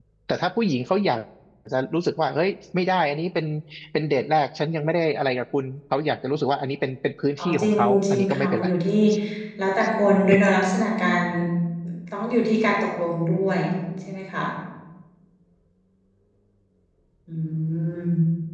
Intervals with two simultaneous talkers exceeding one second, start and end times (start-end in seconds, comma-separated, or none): 7.4-8.7